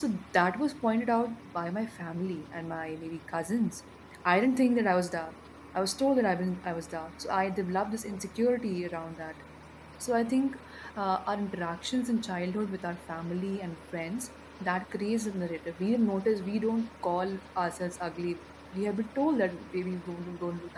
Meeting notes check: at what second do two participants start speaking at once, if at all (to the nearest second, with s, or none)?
none